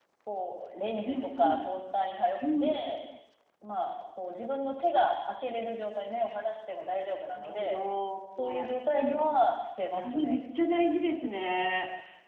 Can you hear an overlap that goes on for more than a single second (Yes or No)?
No